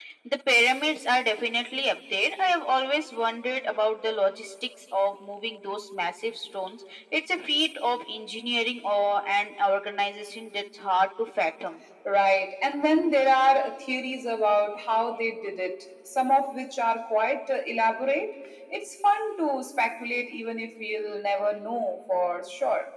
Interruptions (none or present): none